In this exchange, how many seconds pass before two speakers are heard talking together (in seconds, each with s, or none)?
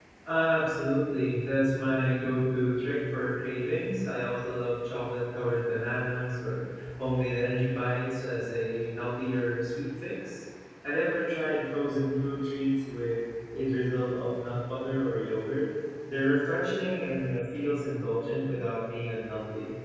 none